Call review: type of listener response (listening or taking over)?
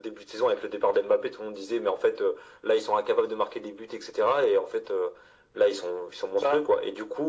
listening